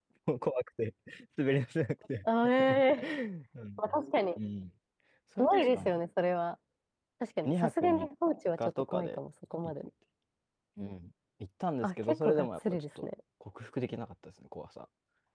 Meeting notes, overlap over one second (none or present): present